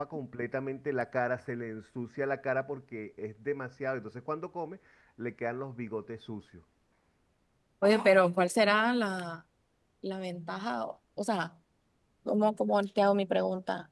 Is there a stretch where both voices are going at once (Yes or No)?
No